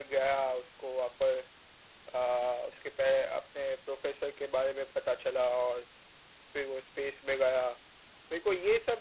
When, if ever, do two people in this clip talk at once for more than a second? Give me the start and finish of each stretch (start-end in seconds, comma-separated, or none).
none